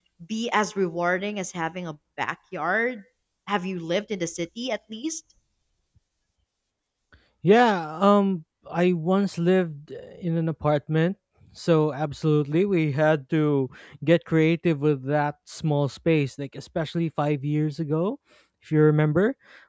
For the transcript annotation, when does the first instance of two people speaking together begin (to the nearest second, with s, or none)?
none